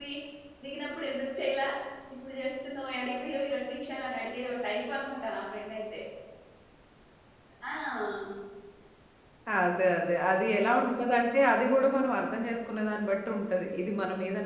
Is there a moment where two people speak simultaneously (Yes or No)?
No